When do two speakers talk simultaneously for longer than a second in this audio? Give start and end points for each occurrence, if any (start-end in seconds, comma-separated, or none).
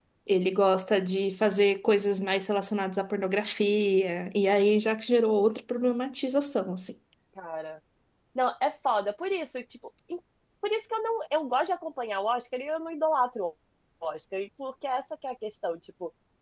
none